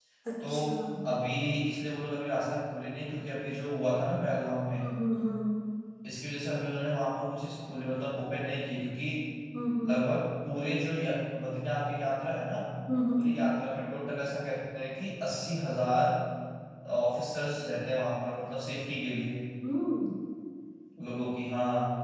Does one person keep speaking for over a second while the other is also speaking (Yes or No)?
No